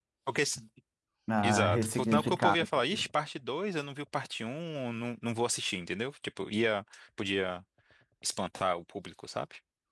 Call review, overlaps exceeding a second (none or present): present